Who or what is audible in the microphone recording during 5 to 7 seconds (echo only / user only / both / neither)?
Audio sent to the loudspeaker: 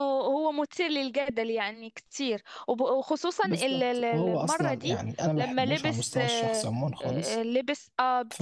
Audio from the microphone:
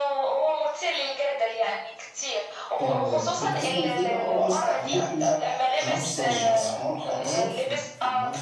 both